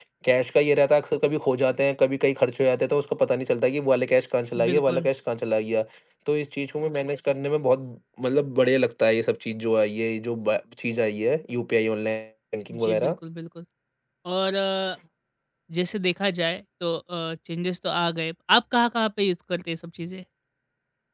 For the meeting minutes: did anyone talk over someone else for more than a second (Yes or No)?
No